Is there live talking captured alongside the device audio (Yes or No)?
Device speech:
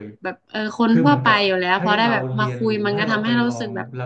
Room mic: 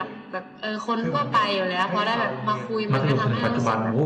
Yes